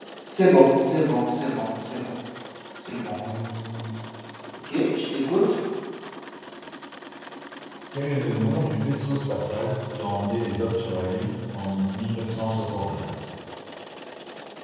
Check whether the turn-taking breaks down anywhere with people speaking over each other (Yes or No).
No